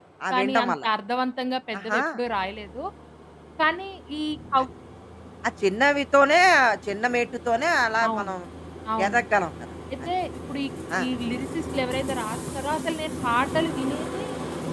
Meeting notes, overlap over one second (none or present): none